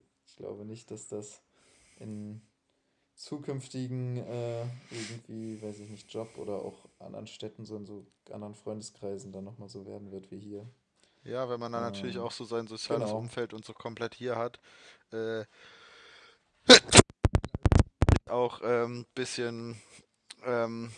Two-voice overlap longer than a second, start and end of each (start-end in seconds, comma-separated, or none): none